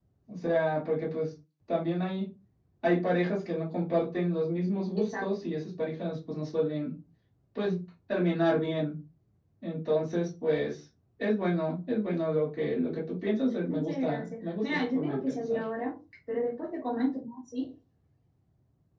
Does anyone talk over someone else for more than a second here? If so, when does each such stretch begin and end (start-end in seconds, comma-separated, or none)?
13.7-15.6